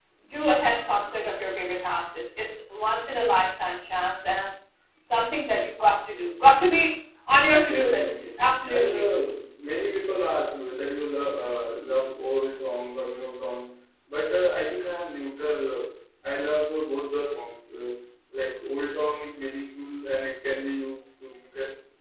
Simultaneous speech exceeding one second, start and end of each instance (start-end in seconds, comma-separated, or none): 7.7-9.1